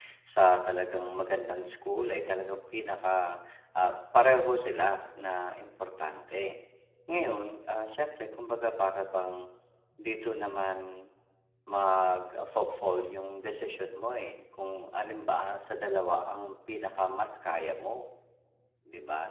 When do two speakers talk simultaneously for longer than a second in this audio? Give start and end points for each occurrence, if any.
none

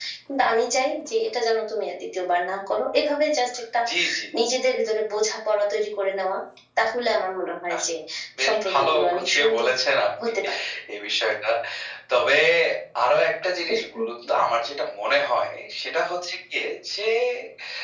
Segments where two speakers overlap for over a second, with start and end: 8.4-9.7

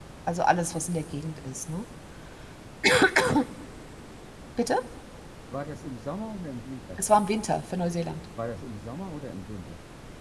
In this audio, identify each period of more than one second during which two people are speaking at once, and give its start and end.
none

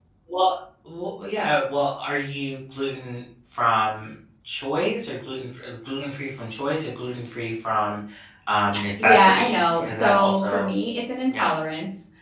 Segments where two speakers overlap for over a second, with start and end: 9.0-10.7

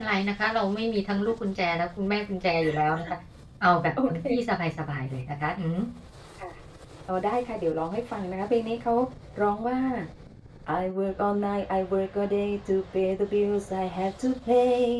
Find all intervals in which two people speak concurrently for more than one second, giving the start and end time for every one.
none

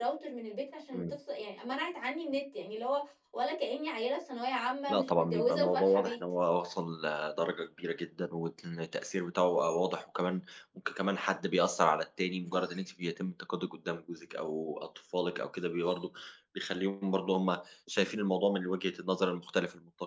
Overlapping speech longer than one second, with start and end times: 4.9-6.2

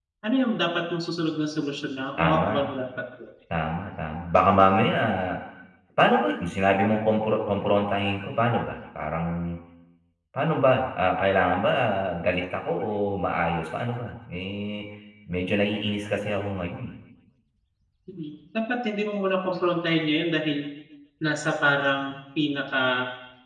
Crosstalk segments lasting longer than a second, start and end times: none

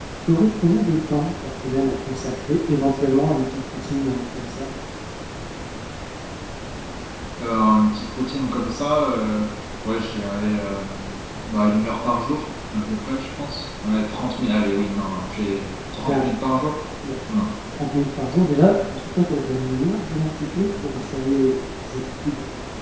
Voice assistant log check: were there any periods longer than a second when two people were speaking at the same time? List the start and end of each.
none

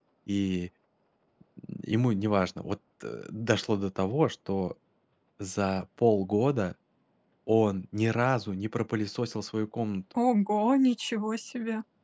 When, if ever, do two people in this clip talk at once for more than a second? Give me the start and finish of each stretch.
none

